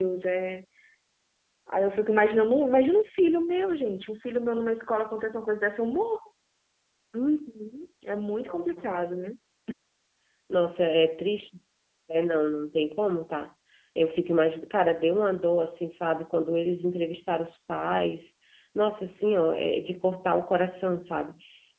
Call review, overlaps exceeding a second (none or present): none